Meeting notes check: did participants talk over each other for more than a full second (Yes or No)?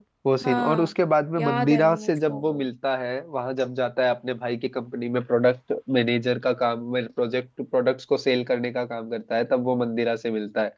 Yes